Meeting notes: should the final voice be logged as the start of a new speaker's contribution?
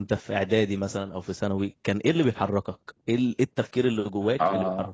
Yes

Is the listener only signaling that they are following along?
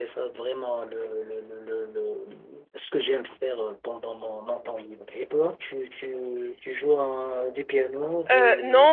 No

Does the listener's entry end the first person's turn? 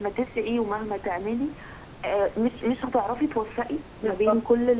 No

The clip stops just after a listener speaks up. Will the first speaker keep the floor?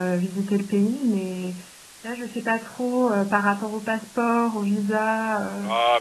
No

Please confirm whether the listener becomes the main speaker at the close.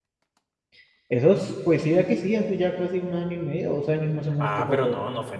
Yes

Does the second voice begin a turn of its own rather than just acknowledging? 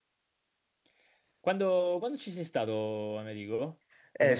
Yes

